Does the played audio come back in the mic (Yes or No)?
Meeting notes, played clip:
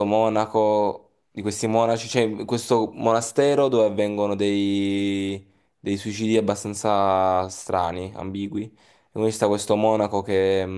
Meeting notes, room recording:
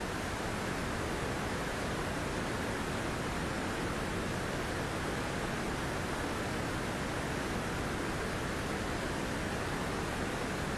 No